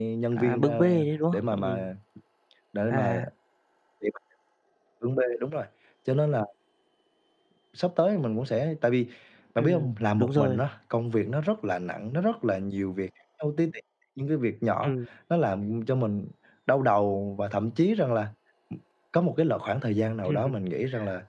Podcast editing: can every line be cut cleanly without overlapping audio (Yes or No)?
No